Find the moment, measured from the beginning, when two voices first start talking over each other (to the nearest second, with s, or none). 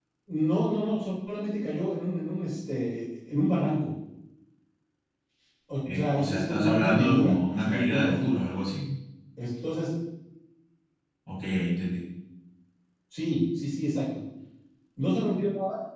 6 s